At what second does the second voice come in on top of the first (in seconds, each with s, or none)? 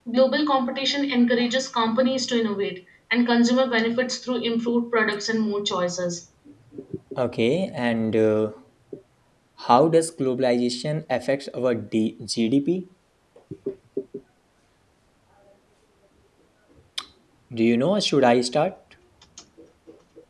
none